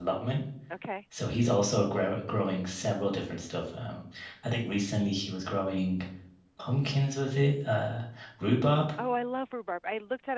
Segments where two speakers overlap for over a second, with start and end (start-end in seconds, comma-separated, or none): none